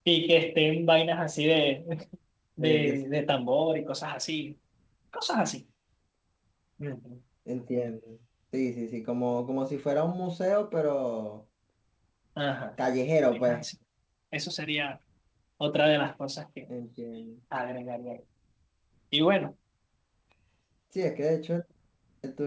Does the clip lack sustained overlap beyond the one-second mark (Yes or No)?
Yes